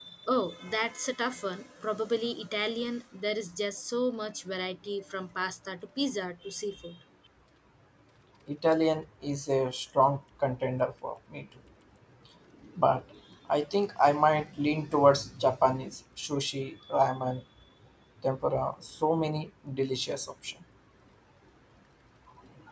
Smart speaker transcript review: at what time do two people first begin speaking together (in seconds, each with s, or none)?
none